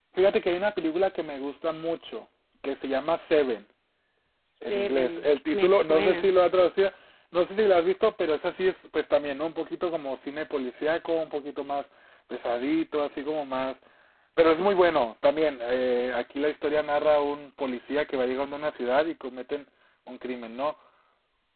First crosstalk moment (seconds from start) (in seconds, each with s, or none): 4.7 s